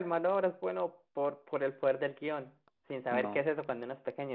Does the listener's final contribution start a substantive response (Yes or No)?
No